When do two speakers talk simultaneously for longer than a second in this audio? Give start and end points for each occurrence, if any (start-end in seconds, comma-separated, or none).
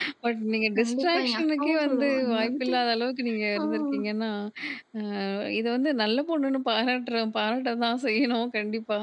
0.8-2.7